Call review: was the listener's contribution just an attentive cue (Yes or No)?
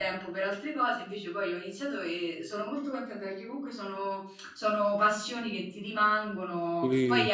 Yes